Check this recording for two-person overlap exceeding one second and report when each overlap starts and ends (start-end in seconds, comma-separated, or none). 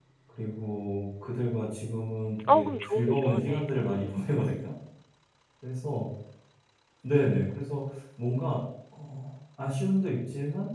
2.5-4.0